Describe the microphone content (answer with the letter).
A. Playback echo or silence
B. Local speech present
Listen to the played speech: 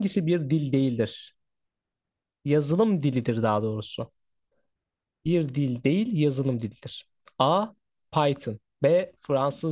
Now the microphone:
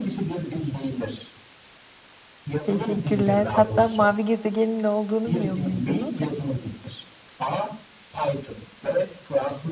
B